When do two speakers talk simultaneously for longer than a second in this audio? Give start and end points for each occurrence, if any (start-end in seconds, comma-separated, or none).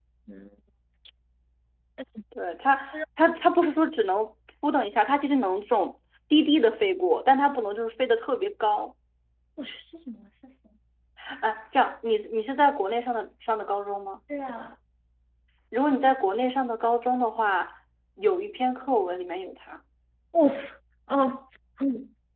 none